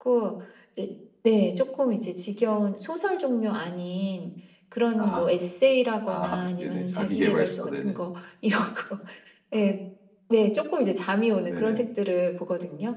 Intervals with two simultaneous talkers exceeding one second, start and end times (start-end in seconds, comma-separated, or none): 6.1-8.0